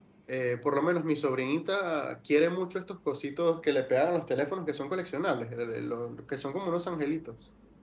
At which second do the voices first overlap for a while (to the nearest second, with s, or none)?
none